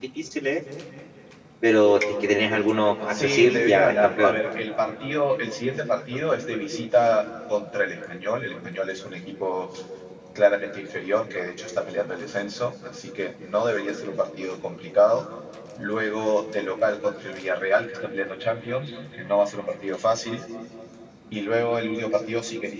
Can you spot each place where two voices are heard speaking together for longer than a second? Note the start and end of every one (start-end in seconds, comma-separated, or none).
3.1-4.4